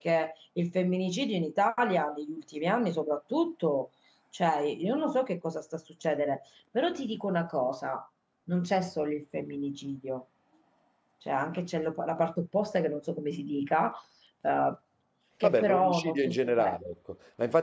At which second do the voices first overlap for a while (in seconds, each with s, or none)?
15.4 s